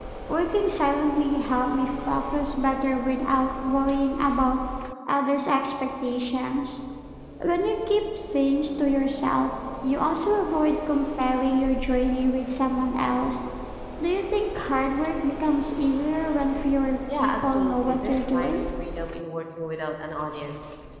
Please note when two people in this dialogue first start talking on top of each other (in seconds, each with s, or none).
17.1 s